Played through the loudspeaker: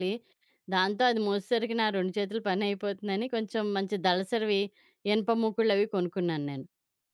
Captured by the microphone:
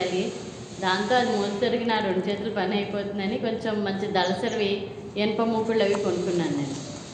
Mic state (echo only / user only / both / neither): echo only